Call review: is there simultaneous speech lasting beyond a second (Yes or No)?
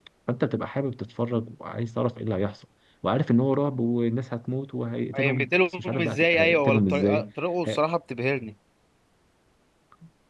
Yes